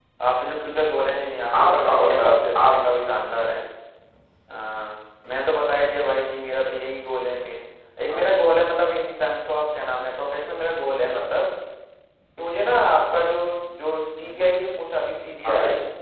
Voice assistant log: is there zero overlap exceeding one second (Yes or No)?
No